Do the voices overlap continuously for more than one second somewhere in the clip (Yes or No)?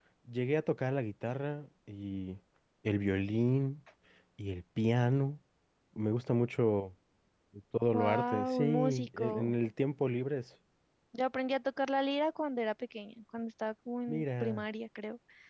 Yes